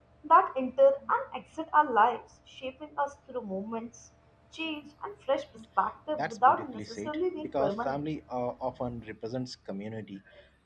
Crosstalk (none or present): present